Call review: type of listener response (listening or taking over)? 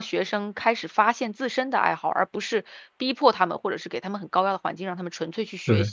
listening